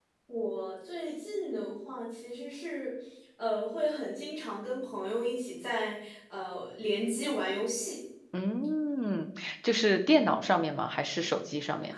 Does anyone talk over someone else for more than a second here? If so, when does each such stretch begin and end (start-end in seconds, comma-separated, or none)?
none